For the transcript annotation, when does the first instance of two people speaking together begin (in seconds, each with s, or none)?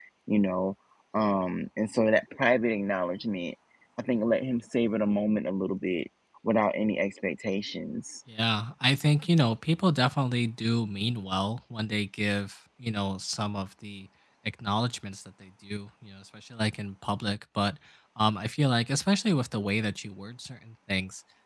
none